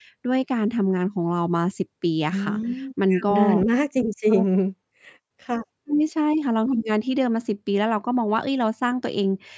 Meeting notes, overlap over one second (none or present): none